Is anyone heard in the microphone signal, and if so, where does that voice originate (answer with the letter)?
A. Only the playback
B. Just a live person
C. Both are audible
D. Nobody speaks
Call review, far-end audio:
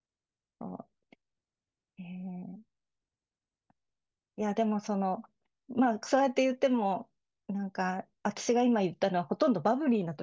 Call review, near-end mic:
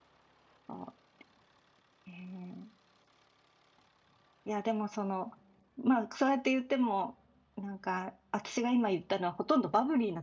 A